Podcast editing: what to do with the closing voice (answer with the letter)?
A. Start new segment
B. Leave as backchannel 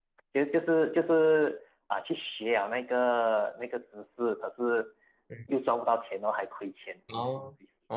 A